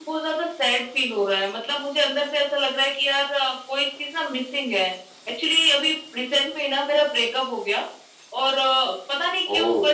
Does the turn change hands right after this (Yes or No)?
No